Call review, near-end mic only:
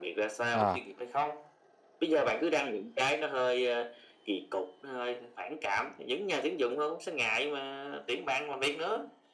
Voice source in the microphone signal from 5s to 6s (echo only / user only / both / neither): echo only